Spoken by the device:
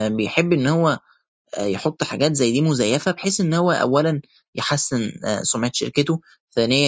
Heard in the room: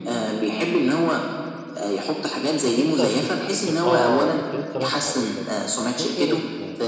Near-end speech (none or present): present